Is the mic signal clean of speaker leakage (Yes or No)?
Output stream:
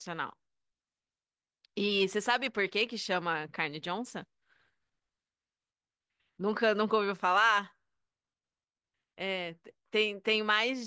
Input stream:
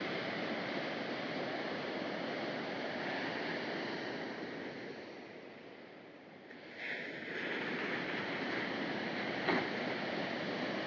Yes